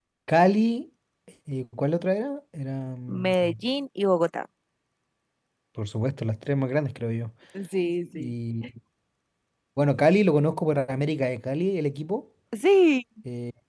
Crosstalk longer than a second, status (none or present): none